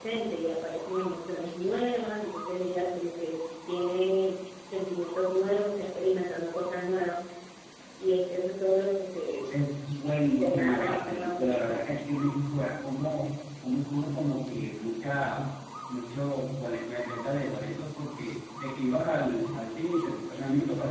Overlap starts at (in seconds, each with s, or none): 10.4 s